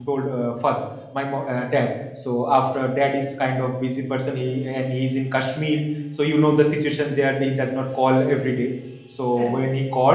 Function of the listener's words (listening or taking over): listening